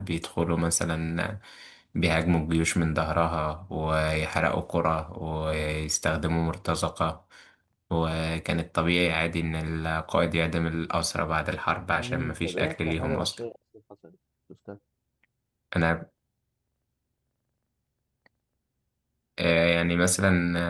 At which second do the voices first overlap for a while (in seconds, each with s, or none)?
12.0 s